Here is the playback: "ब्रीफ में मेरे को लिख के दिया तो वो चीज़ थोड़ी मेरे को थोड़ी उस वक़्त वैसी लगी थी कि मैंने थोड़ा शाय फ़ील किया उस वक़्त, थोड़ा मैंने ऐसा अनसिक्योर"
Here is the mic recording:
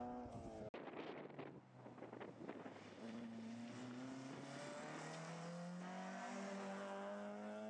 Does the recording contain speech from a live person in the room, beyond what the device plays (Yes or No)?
No